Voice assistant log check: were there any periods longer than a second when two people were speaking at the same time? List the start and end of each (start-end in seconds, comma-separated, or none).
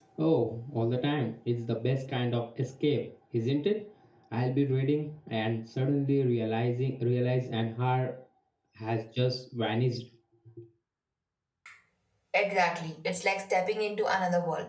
none